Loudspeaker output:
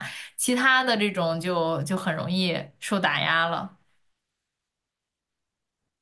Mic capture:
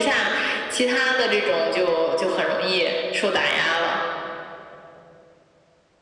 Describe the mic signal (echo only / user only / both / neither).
echo only